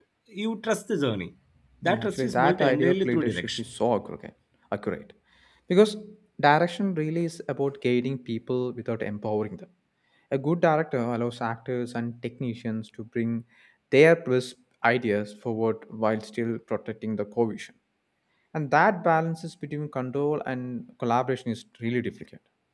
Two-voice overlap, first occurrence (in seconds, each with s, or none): 1.8 s